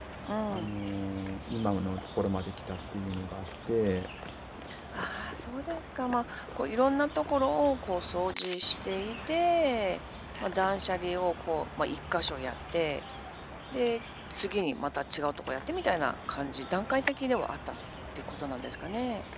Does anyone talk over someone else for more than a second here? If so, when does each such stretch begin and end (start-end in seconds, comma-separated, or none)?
none